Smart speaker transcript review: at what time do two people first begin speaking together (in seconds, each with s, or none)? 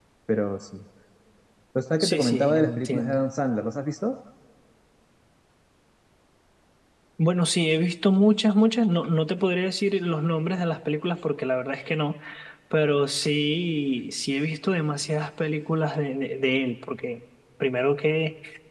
2.0 s